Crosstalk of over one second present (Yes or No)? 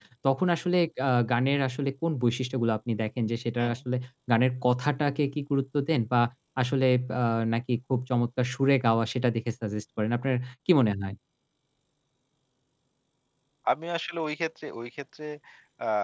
No